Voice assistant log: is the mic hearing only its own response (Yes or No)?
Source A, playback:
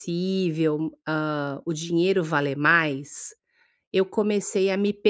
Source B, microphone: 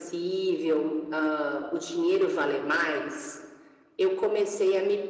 Yes